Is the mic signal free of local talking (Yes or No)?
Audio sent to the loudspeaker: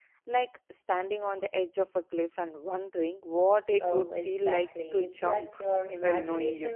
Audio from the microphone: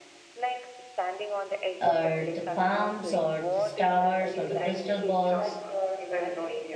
No